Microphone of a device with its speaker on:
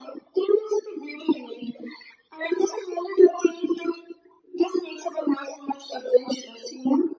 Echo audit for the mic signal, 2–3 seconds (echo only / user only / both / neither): echo only